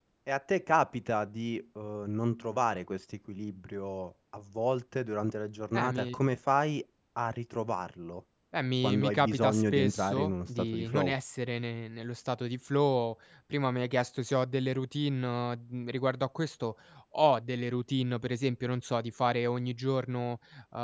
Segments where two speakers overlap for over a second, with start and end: 8.8-11.1

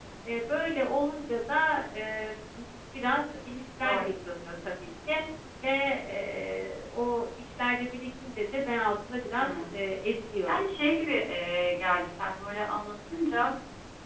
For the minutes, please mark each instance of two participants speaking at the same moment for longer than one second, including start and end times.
none

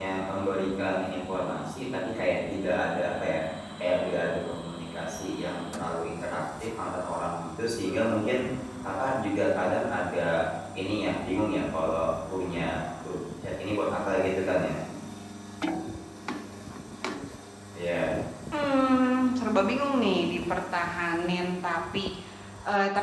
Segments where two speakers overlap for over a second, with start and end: none

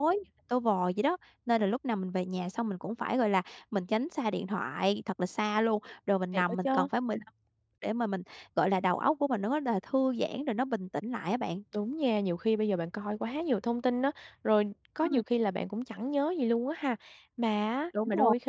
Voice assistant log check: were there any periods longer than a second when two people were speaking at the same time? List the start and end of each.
none

